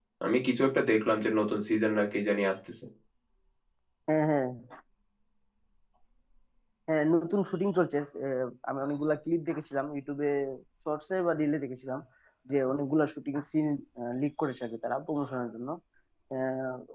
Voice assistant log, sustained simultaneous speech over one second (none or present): none